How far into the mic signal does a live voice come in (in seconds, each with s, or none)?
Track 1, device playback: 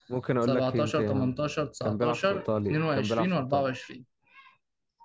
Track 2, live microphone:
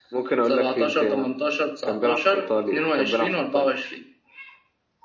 none